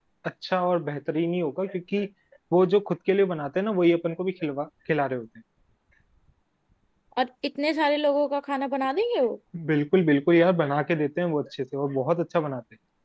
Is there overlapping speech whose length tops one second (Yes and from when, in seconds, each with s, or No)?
No